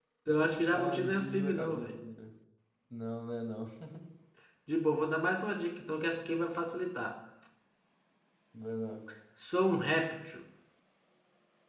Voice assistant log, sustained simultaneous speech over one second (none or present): present